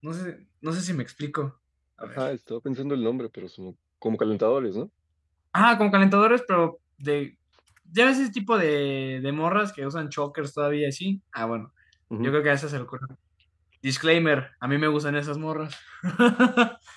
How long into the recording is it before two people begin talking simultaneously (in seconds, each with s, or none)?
none